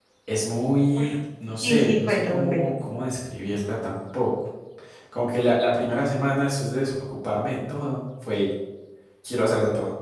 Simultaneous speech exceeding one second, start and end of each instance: 1.6-2.8

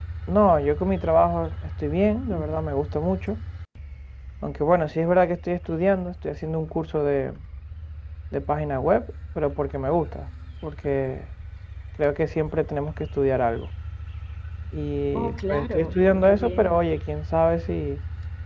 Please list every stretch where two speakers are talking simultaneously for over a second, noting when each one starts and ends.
15.2-16.8

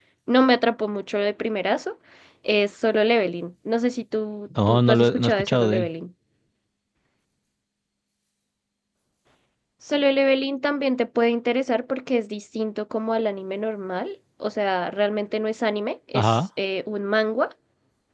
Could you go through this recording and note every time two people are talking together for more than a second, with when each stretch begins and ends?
4.7-5.9

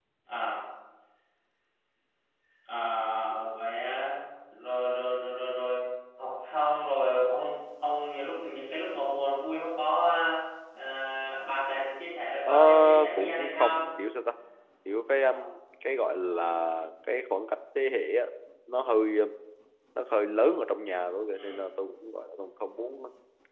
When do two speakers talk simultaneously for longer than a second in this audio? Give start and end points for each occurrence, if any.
12.4-13.8

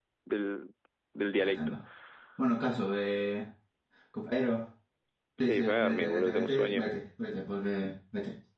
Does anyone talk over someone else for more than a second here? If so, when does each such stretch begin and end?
5.4-6.9

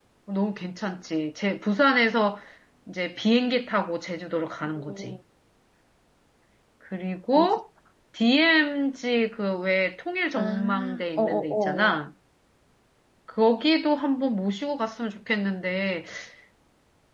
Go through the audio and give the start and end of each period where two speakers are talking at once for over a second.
10.3-12.0

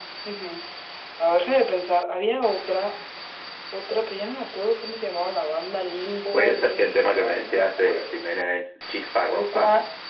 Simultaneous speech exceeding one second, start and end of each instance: 6.3-8.2

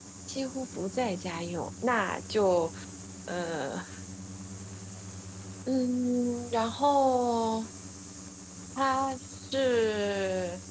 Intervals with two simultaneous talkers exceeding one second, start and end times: none

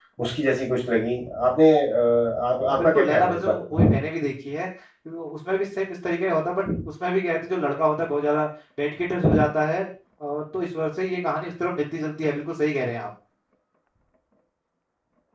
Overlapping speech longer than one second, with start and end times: 2.7-3.9

